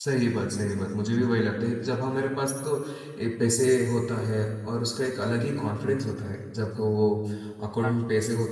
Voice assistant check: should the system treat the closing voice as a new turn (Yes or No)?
No